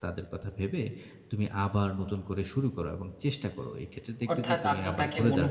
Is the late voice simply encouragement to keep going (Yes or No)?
No